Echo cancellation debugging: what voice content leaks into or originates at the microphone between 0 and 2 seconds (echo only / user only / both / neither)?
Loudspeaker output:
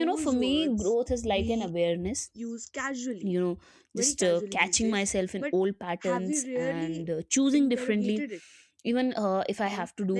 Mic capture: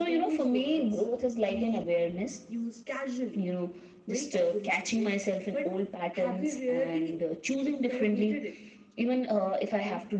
echo only